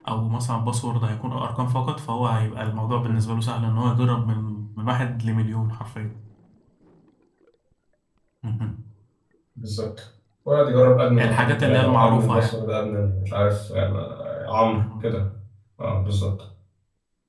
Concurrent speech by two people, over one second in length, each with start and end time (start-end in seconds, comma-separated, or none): 11.2-12.6